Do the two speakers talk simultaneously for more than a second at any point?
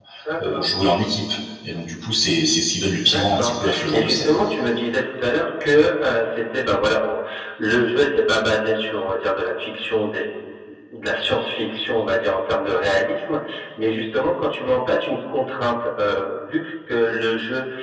Yes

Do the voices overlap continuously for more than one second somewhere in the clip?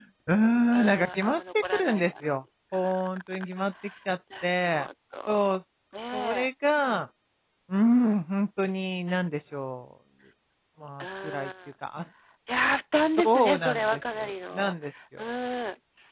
Yes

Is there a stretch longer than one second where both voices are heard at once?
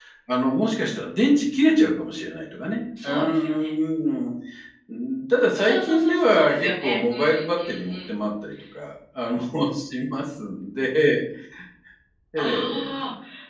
Yes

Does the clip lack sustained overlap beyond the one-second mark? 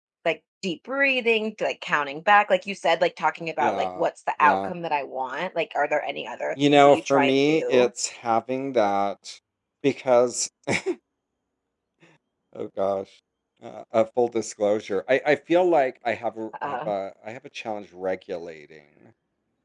No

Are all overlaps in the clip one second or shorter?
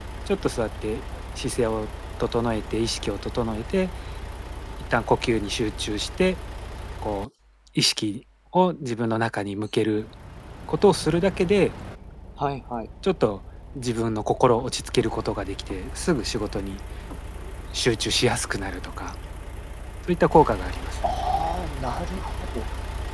Yes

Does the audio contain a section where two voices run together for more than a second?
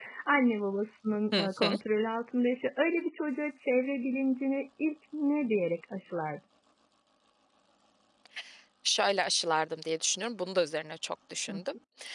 No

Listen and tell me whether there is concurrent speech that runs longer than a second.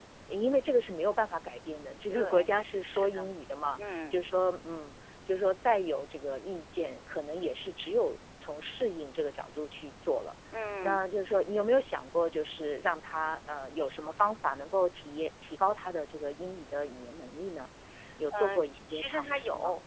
Yes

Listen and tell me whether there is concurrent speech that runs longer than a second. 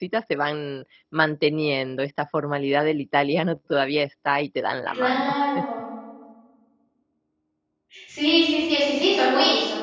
No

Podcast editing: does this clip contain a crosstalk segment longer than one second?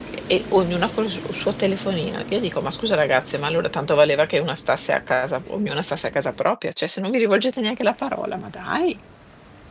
No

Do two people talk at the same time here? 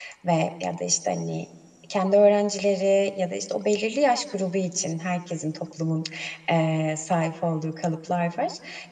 No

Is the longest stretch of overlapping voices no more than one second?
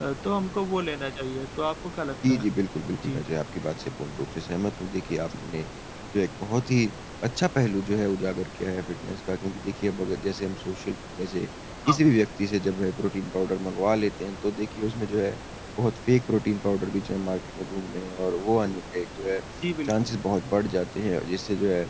Yes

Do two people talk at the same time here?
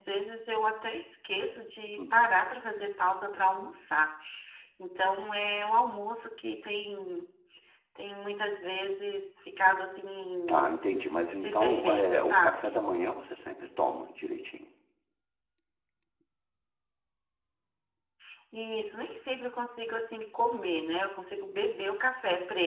Yes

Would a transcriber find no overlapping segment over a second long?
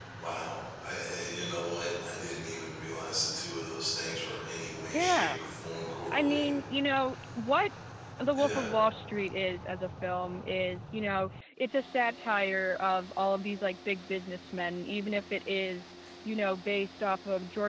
Yes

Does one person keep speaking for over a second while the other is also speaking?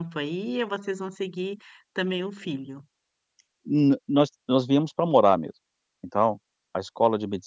No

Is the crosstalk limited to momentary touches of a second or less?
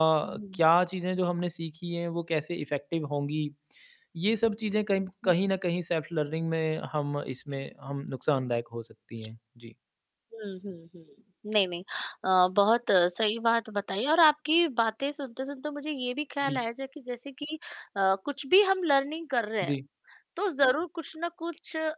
Yes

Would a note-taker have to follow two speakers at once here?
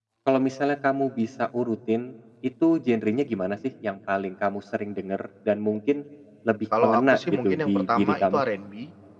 Yes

